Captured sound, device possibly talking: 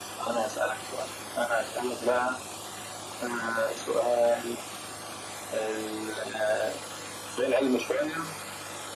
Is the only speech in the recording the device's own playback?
Yes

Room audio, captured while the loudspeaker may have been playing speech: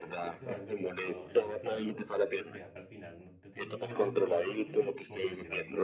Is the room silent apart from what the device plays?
No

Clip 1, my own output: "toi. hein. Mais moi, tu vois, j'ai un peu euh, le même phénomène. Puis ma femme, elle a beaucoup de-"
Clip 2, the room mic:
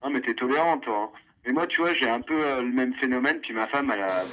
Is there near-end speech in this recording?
No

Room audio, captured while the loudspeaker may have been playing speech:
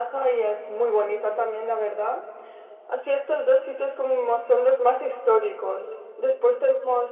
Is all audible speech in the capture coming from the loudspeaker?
Yes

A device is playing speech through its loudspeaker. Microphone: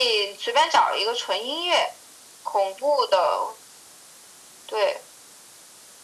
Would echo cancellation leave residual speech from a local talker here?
No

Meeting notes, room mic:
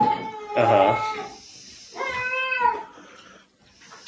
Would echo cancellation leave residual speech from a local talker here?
Yes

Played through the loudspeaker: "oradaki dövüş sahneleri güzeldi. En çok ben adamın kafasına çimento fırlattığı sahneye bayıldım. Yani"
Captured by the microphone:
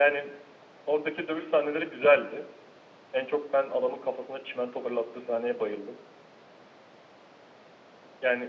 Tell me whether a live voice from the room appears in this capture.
No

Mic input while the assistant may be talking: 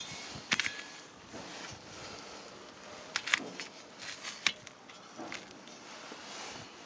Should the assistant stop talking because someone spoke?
No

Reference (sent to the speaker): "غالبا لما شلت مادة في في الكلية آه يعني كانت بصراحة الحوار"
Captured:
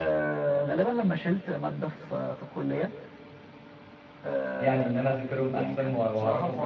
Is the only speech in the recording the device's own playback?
No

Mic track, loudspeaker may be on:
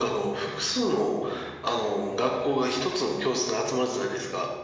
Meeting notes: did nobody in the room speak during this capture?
Yes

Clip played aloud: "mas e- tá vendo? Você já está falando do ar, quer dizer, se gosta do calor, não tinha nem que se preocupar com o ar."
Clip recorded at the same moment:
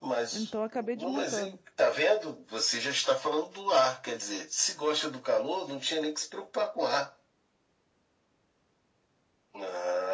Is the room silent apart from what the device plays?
No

